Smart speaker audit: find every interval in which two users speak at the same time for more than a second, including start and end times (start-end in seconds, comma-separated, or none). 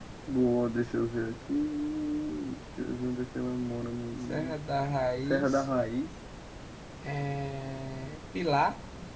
none